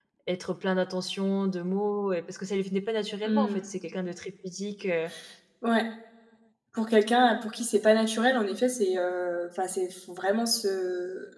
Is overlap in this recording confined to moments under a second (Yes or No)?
Yes